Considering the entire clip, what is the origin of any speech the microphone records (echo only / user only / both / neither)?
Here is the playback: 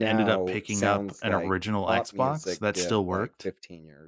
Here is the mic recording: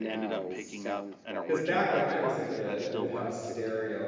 both